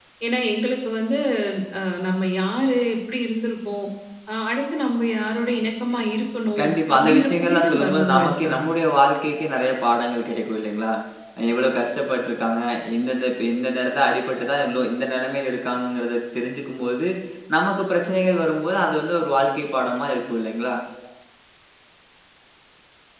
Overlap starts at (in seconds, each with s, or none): 6.6 s